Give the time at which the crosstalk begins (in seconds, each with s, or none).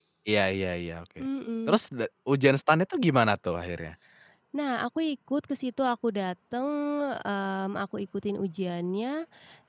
none